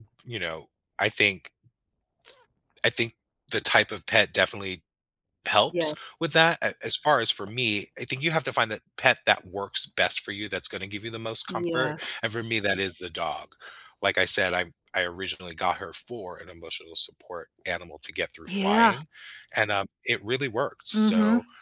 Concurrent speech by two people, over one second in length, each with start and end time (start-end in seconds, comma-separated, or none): none